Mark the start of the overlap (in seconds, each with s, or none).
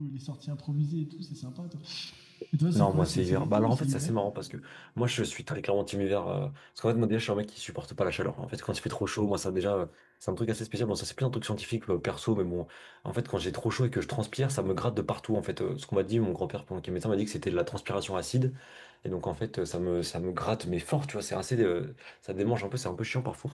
2.7 s